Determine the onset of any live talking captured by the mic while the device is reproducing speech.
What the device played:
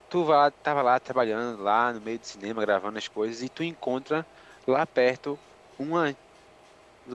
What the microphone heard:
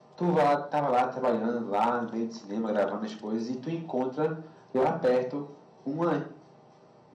none

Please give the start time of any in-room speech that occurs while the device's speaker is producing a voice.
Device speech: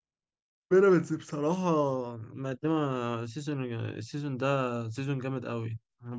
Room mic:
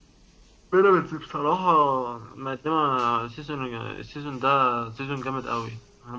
none

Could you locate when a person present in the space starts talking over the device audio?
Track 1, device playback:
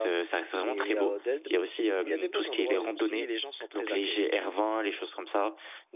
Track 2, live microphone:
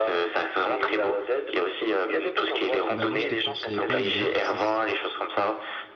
2.9 s

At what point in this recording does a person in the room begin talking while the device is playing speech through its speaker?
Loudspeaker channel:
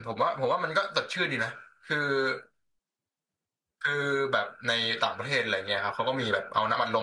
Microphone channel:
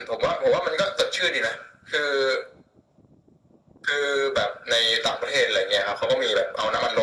none

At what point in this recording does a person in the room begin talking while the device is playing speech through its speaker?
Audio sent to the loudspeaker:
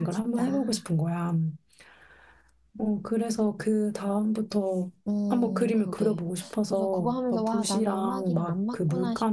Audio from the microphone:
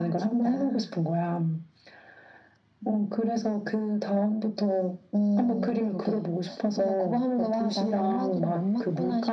none

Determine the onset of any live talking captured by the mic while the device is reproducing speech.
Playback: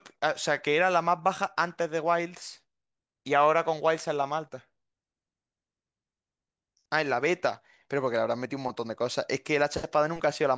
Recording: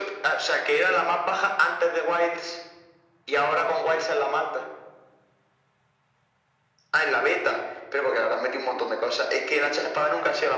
none

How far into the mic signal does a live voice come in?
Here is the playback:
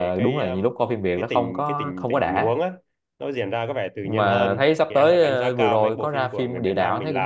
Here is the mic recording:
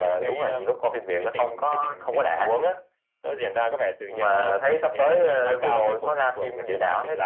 none

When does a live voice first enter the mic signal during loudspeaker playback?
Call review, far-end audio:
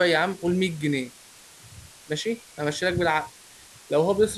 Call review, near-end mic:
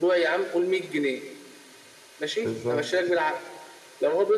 2.4 s

